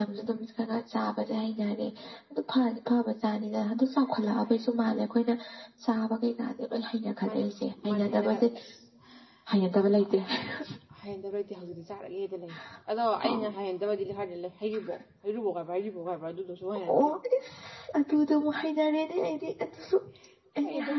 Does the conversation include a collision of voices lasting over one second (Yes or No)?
Yes